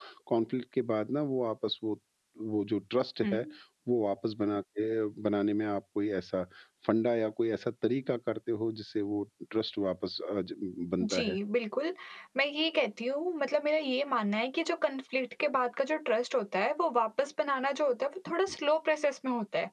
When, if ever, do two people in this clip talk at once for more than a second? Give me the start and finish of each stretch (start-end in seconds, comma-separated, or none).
none